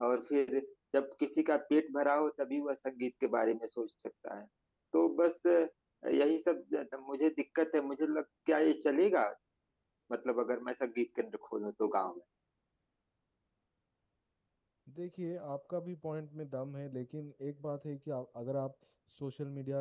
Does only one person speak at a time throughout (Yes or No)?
Yes